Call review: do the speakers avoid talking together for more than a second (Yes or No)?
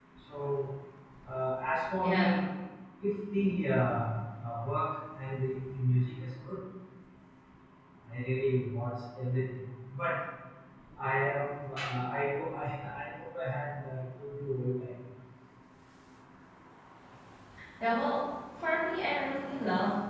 Yes